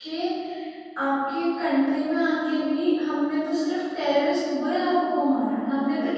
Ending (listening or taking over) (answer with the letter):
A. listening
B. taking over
A